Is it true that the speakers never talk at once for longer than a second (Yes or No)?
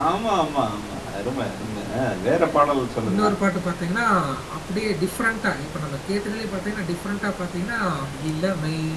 Yes